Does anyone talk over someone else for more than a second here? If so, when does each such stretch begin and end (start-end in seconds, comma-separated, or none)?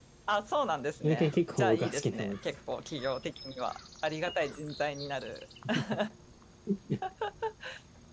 1.0-2.4